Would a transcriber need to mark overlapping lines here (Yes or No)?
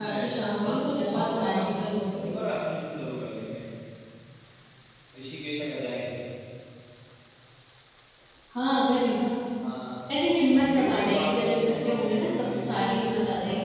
Yes